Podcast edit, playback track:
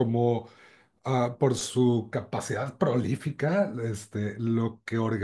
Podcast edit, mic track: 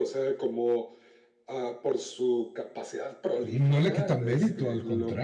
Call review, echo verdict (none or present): present